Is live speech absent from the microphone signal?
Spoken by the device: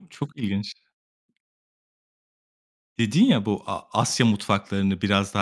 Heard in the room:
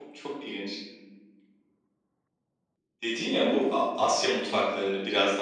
Yes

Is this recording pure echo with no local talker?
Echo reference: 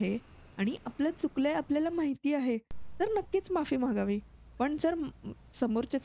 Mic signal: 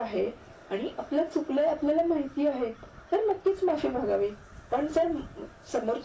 Yes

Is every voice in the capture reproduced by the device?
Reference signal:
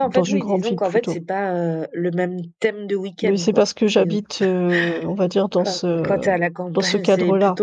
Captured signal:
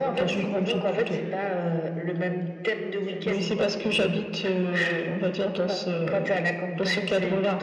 No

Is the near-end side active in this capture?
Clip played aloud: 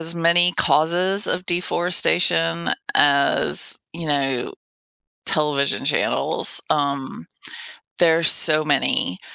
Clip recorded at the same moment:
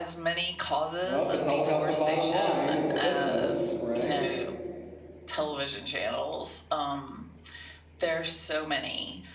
Yes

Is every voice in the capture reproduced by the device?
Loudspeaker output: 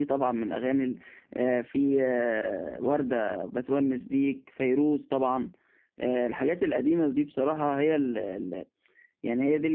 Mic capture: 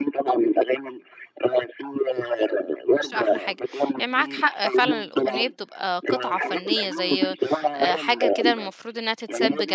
No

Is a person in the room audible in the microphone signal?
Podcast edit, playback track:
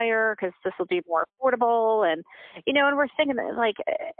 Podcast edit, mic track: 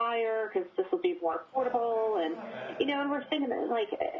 Yes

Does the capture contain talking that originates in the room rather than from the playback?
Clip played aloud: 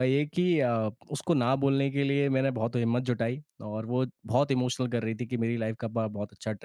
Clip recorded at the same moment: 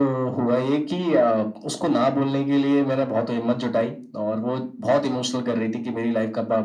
No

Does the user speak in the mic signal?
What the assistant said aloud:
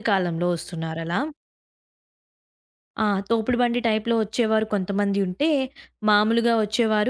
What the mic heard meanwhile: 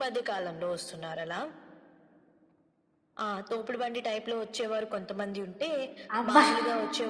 Yes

